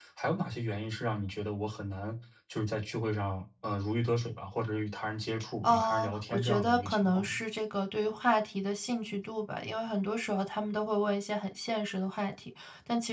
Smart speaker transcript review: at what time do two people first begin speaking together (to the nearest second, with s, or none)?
6 s